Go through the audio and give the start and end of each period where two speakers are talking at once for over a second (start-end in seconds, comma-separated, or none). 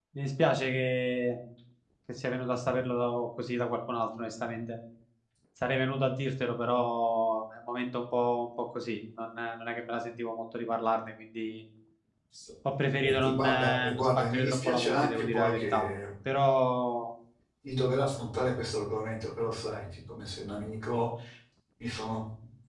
13.0-15.9